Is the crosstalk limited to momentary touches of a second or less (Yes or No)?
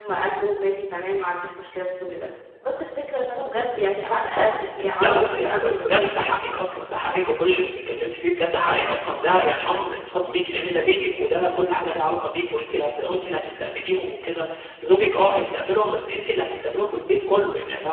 No